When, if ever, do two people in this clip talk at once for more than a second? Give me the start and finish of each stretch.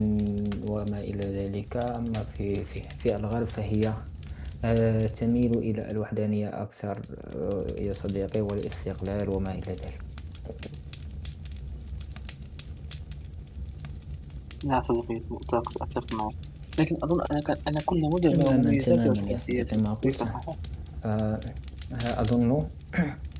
18.2-20.4

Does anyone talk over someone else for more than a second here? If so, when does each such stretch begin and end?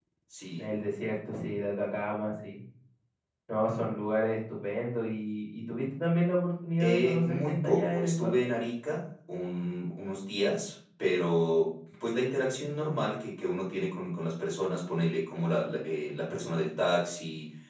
6.8-8.3

